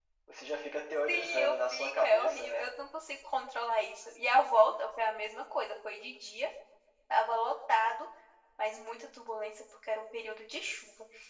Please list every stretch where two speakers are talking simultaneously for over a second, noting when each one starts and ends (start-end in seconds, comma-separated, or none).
1.1-2.7